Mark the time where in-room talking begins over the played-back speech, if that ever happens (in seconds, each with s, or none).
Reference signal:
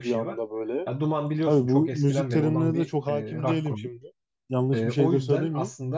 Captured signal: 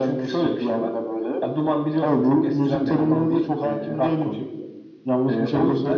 none